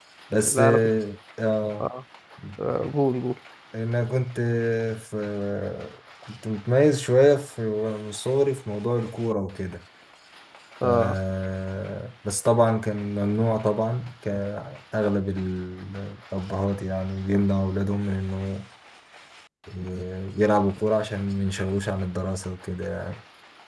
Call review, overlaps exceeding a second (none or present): none